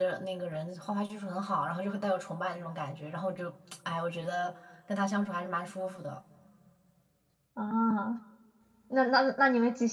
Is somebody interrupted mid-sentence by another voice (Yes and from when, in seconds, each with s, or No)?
No